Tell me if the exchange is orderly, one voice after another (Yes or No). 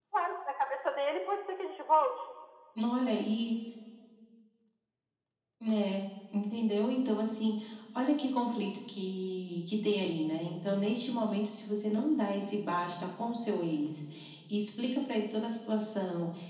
Yes